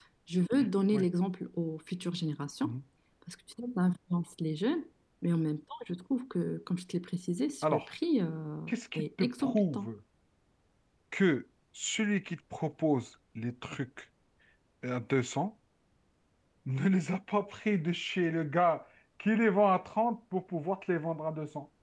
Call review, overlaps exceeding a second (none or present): present